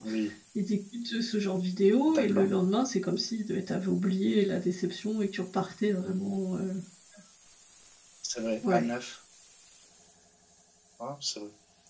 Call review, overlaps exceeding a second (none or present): none